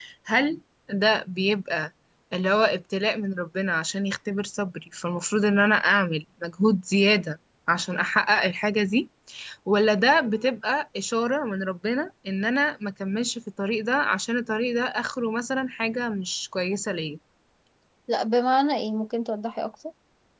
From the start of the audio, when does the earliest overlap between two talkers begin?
none

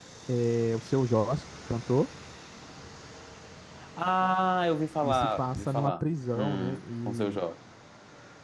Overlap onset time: 5.0 s

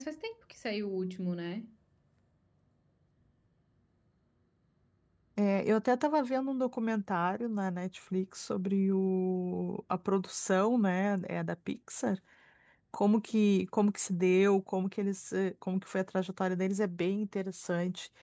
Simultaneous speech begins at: none

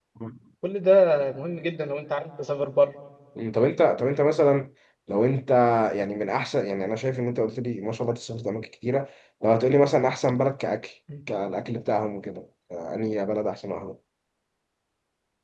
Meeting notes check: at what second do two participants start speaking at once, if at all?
none

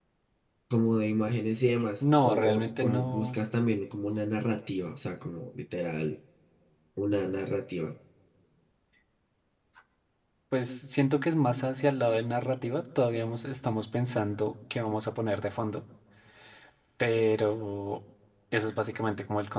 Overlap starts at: 2.0 s

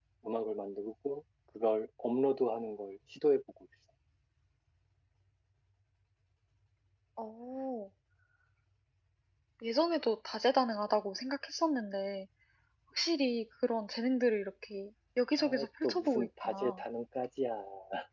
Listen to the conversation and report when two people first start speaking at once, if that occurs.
15.4 s

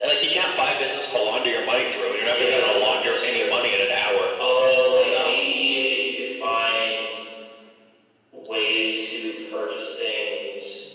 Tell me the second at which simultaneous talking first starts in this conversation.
2.3 s

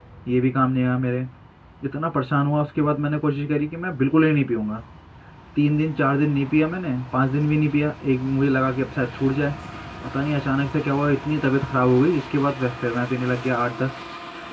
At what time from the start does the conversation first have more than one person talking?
none

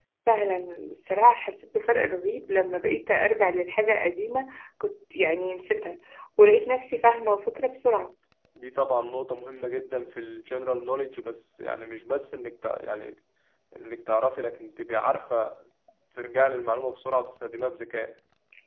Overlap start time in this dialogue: none

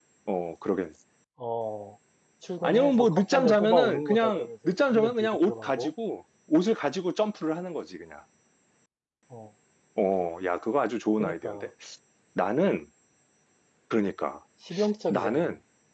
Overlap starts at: 2.6 s

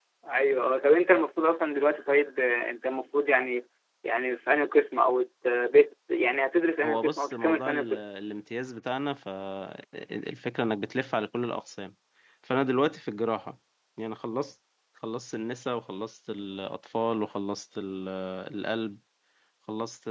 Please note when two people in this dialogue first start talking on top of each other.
6.8 s

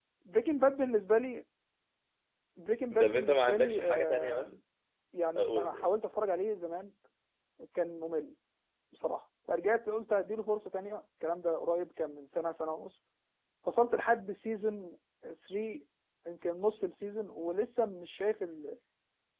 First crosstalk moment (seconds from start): 3.0 s

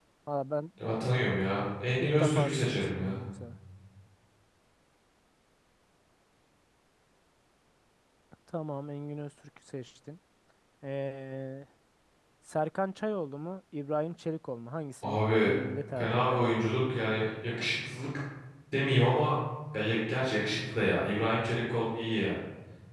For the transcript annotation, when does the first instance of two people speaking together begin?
2.0 s

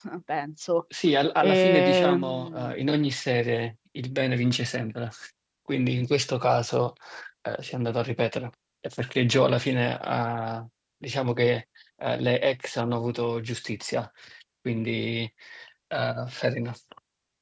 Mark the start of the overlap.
1.4 s

